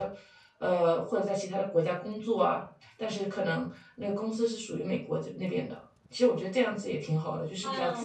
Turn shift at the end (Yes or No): Yes